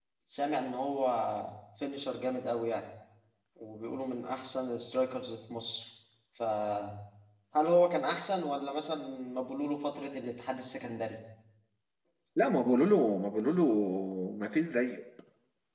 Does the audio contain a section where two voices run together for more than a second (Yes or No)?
No